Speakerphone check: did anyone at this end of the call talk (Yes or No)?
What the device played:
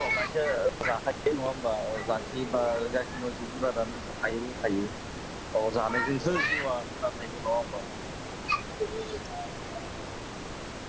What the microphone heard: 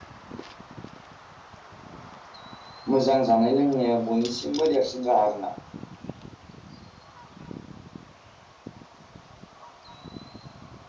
Yes